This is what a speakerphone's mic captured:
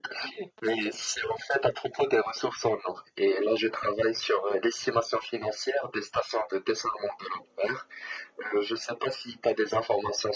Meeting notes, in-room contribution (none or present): none